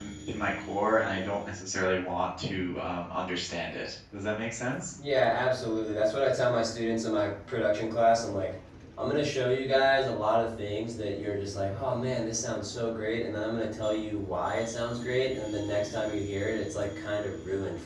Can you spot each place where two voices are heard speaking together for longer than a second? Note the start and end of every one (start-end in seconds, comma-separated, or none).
none